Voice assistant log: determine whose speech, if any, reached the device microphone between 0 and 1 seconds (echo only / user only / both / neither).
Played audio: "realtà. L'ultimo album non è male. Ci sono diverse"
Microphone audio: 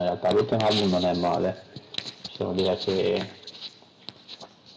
echo only